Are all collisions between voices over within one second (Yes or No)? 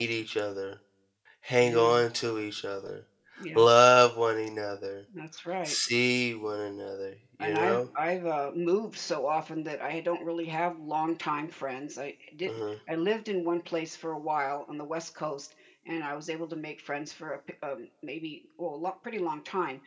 Yes